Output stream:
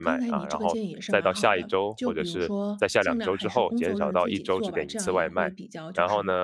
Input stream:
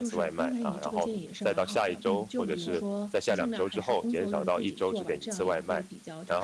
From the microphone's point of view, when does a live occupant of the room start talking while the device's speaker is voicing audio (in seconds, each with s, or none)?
2.0 s